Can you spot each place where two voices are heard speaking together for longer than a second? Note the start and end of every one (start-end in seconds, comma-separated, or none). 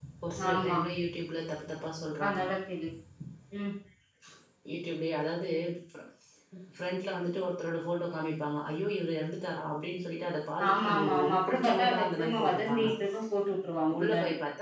10.7-12.8